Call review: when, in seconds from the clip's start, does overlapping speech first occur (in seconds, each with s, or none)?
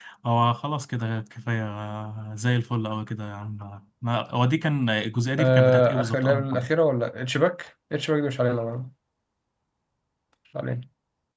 5.4 s